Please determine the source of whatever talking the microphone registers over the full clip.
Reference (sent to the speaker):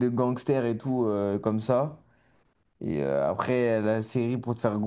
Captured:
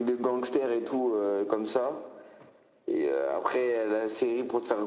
echo only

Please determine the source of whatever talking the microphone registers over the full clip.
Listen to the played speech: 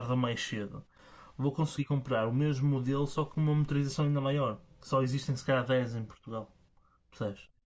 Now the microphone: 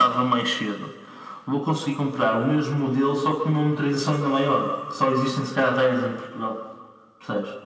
echo only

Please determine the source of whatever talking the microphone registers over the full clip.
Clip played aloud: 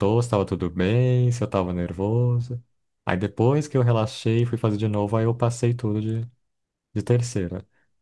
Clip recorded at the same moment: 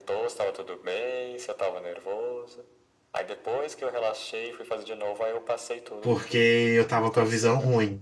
both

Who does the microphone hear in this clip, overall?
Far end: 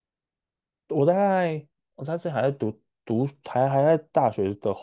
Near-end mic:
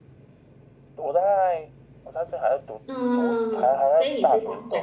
both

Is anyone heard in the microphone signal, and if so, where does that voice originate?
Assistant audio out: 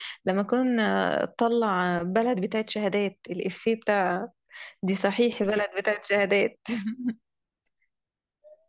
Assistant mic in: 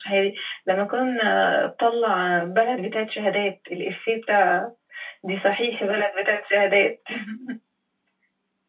echo only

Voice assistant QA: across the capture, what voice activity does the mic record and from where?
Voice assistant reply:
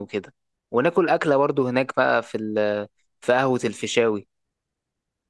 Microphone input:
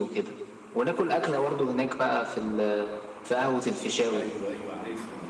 both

